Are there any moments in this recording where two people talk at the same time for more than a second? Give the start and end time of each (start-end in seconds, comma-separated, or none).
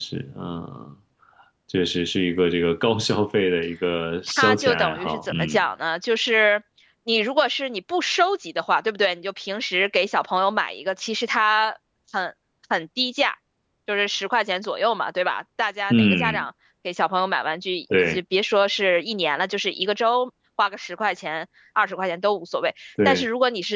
4.3-5.6